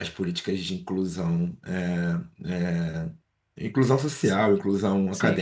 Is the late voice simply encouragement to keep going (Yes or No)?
No